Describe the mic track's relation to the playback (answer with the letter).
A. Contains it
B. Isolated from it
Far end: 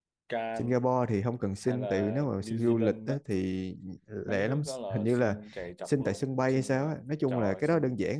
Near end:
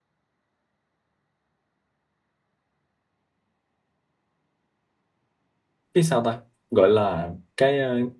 B